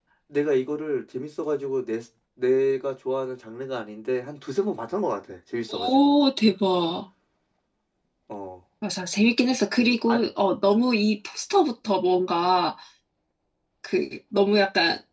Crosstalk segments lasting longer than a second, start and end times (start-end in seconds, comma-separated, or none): none